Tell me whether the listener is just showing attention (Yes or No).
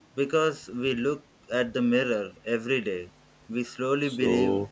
No